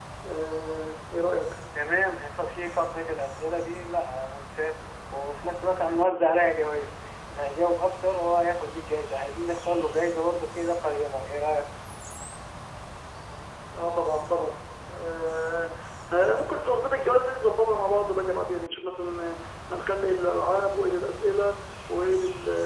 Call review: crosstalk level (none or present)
none